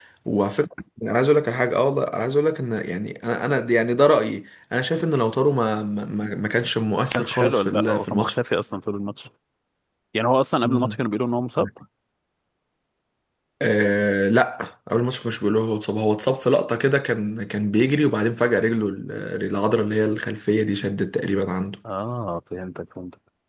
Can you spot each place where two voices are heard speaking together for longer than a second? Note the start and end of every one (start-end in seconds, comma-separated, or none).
7.2-8.3